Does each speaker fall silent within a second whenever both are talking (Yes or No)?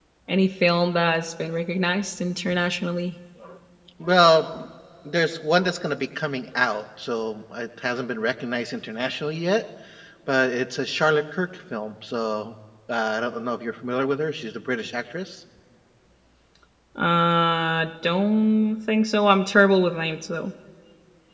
Yes